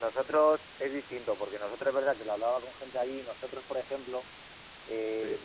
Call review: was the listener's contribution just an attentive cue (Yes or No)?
Yes